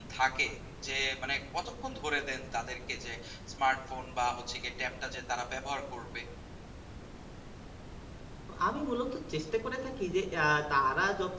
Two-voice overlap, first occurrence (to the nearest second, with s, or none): none